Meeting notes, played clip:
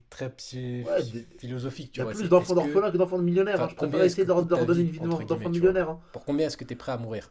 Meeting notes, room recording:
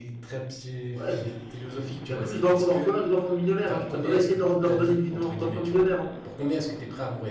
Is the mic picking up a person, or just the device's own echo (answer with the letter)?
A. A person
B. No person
B